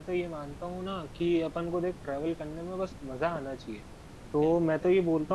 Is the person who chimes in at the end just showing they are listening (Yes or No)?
Yes